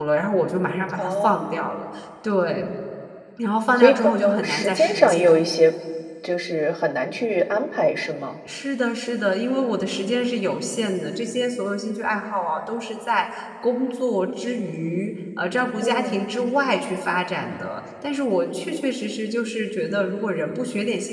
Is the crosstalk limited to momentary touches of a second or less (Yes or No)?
No